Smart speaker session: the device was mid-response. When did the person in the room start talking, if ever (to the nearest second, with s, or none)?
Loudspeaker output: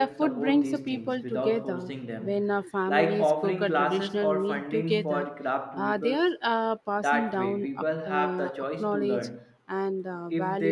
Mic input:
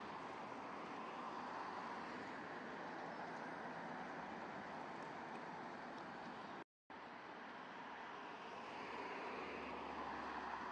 none